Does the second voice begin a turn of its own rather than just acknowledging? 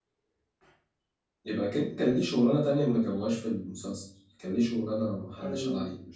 Yes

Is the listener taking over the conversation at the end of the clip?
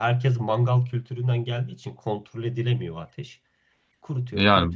Yes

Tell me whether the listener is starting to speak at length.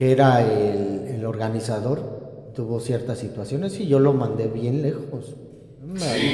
No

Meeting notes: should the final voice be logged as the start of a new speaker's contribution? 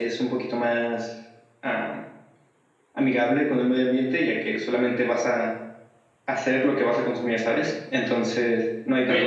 Yes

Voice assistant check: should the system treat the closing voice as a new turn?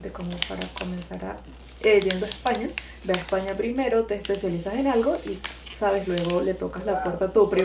Yes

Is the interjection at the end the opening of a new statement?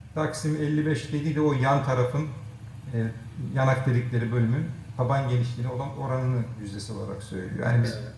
Yes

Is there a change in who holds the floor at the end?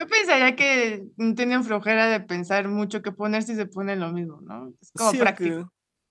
Yes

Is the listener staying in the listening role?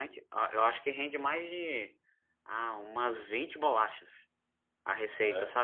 Yes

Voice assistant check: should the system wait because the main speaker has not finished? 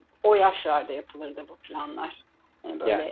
Yes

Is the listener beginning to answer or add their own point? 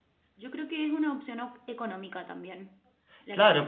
Yes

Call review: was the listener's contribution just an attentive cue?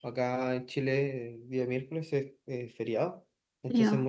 Yes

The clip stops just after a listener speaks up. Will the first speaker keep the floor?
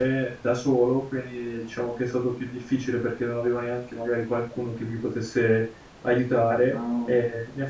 Yes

